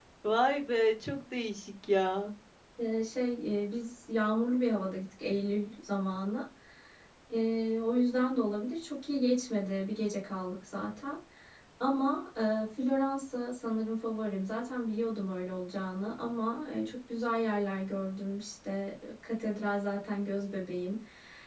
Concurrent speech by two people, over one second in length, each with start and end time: none

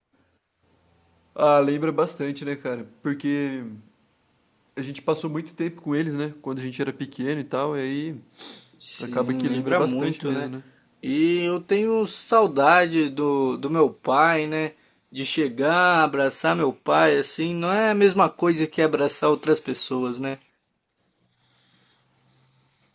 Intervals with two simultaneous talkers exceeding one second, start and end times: 9.0-10.5

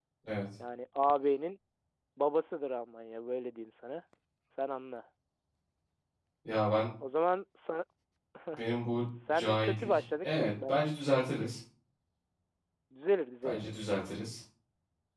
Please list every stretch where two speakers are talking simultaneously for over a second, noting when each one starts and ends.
9.3-10.8

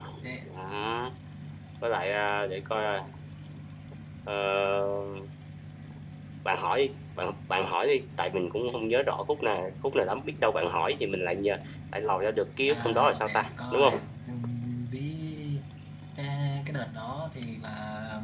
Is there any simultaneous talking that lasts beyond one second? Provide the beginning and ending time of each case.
12.7-13.9

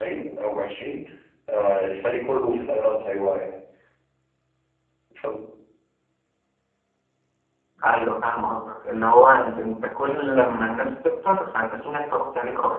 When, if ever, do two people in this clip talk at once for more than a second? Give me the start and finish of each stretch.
none

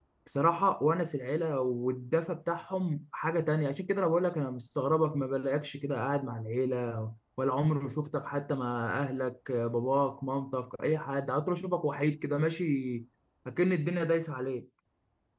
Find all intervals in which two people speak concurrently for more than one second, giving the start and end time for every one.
none

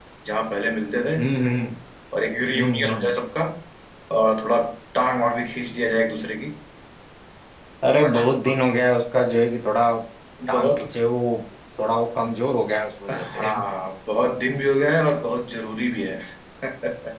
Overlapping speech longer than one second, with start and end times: none

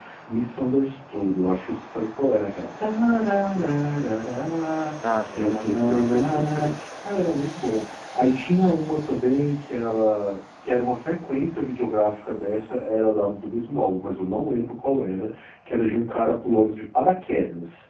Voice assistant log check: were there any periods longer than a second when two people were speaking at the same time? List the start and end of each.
5.3-6.8

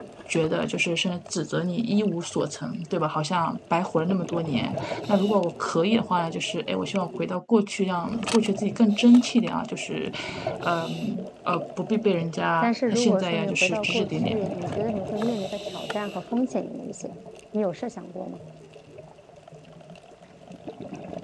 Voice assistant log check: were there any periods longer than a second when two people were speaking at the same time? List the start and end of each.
12.6-14.5

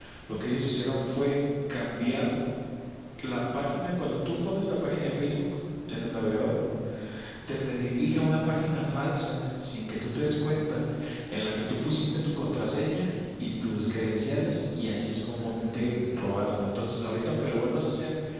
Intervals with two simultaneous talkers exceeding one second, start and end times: 15.3-16.5

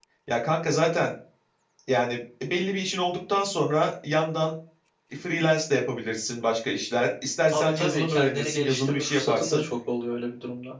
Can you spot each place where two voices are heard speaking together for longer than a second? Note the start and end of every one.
7.5-9.6

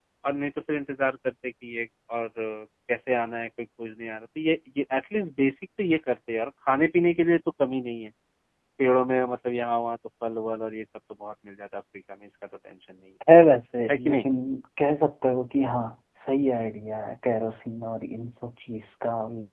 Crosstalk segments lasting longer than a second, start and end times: none

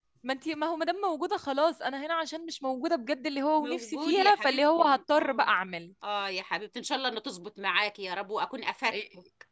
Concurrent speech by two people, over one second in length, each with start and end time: 3.6-5.5

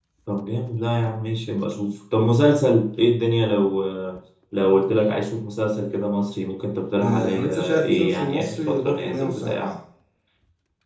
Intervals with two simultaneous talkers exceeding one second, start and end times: 7.0-9.7

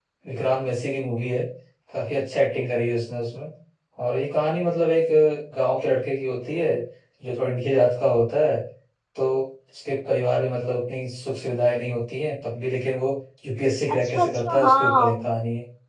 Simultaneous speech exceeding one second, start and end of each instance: 14.0-15.3

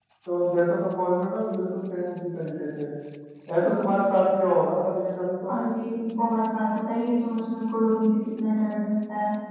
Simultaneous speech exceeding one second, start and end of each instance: none

